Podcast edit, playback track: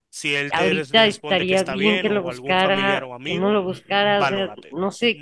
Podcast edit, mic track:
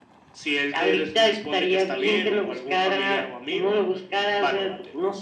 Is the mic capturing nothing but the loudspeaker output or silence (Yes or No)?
Yes